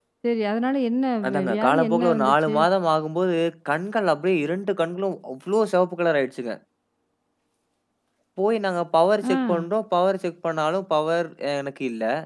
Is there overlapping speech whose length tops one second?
Yes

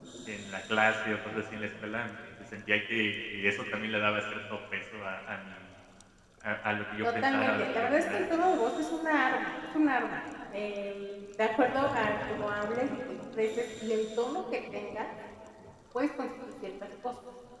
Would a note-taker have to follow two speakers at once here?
Yes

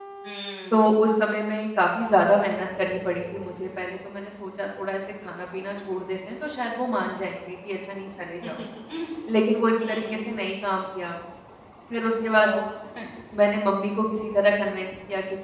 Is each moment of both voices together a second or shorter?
Yes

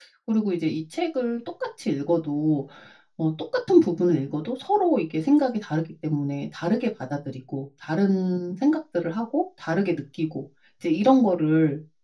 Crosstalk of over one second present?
No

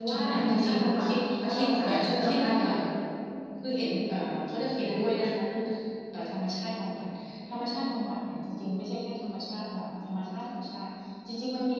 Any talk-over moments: Yes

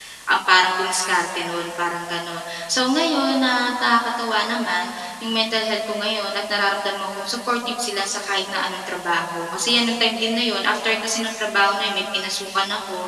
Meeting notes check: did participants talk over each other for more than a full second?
No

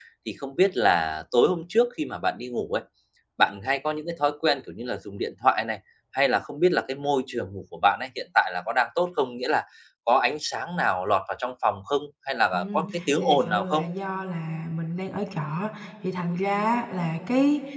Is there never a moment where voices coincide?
No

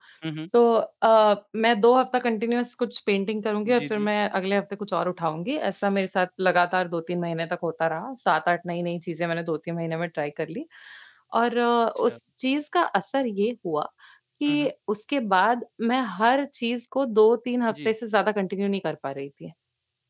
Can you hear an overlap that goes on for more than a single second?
No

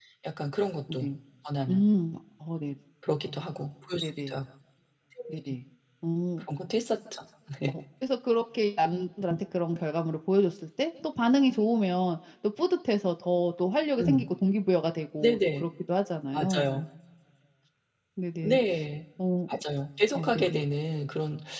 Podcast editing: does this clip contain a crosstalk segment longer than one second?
No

